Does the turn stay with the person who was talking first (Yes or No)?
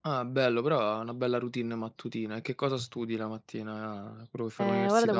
No